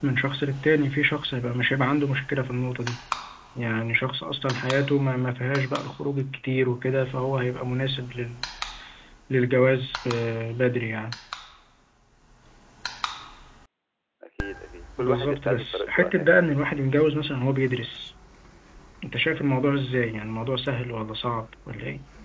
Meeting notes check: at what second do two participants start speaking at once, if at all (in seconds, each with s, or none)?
15.0 s